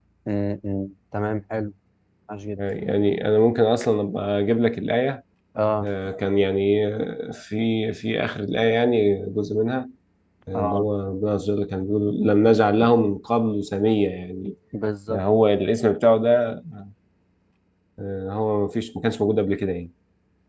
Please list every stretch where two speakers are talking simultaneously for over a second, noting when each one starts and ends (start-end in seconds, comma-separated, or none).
none